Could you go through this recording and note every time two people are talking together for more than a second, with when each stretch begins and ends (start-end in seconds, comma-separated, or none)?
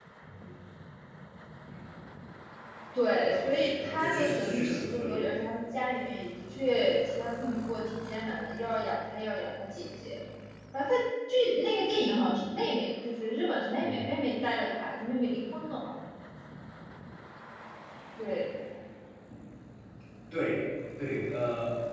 3.2-5.2